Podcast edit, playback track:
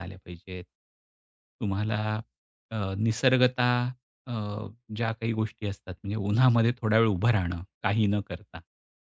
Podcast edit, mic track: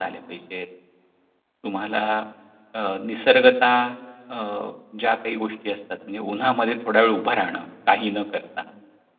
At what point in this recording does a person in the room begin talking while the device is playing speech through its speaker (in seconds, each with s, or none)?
none